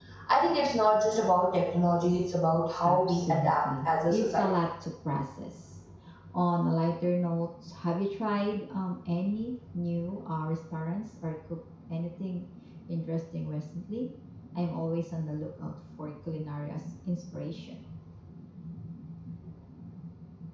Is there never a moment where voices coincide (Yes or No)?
No